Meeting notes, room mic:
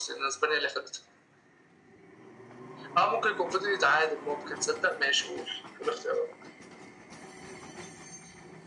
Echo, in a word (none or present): present